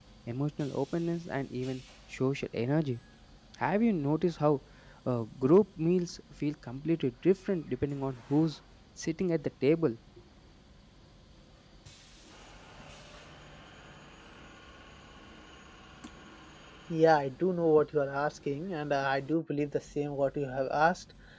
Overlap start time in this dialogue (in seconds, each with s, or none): none